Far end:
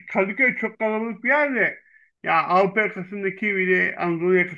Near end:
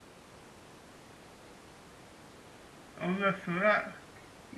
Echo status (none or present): none